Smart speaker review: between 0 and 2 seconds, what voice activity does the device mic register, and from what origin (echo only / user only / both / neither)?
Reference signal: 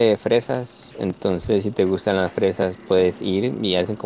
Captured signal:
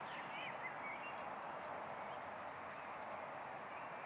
neither